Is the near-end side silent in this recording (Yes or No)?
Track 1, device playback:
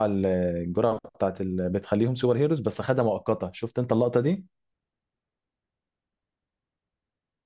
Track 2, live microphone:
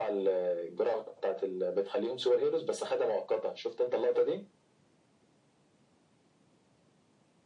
Yes